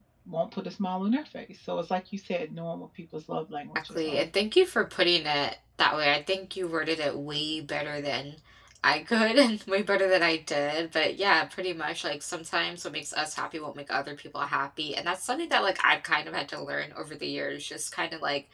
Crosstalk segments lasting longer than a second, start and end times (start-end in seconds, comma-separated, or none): none